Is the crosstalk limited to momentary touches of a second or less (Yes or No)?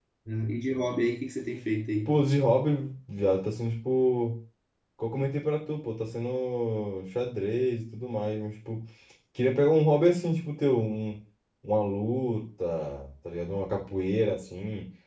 Yes